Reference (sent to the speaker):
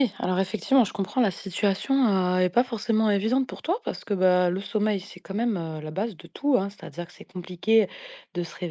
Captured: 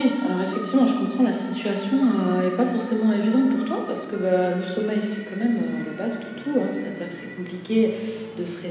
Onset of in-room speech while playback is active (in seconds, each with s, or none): none